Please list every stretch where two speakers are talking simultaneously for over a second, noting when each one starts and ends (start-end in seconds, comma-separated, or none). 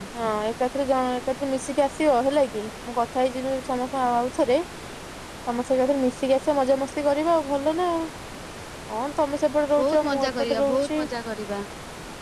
9.8-11.0